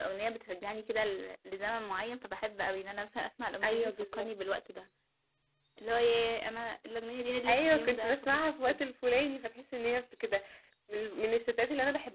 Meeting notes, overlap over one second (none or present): present